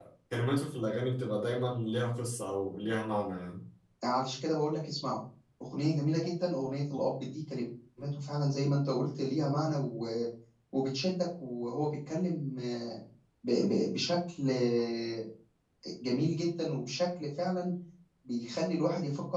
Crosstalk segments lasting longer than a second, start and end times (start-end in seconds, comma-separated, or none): none